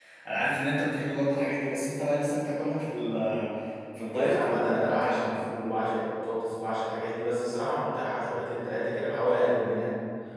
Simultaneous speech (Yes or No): Yes